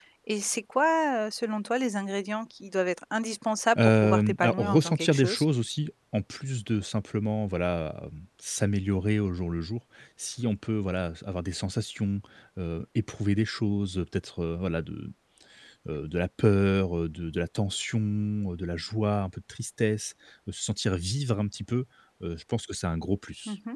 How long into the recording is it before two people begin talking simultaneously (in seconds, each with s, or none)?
3.8 s